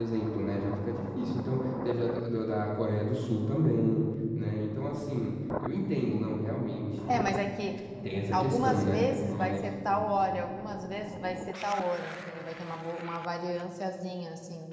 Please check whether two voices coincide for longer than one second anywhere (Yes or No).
Yes